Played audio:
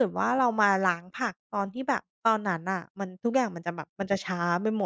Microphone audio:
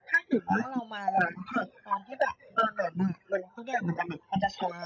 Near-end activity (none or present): none